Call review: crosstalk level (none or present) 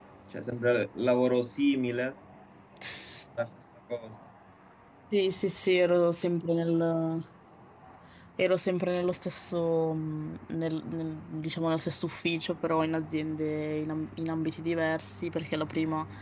none